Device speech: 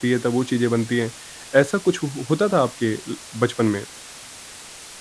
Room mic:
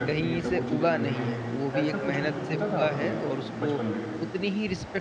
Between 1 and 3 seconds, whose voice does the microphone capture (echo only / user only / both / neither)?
both